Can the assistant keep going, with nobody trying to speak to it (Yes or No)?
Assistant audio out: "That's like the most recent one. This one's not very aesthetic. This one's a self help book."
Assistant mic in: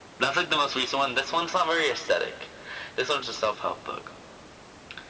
Yes